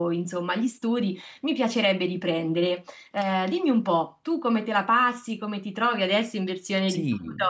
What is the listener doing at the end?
taking over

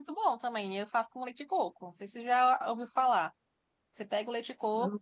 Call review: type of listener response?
listening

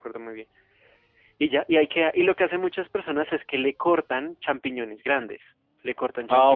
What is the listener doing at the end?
listening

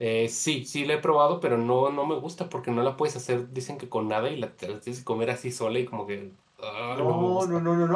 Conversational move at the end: taking over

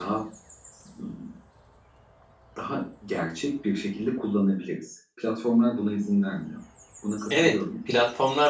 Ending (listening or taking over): taking over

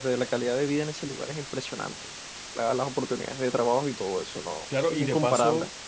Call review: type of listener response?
taking over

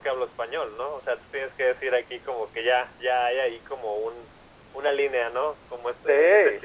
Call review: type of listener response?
listening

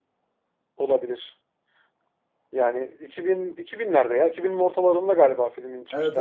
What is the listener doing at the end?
taking over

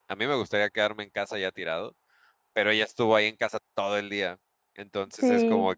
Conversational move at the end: listening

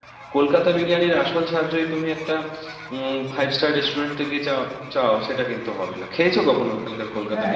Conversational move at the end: taking over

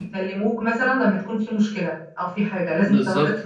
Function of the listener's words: taking over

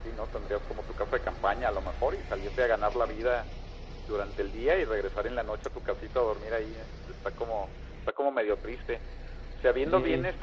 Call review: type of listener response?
listening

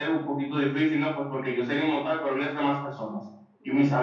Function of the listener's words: listening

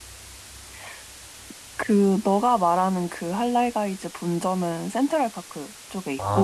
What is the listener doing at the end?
taking over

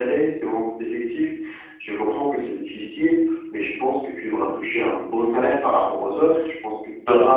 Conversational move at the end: listening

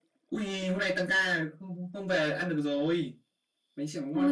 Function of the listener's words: taking over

